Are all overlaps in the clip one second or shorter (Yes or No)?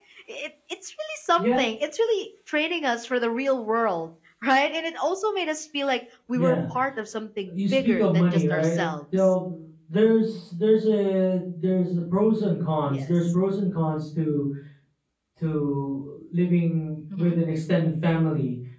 No